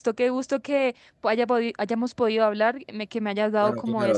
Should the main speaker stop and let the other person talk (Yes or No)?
Yes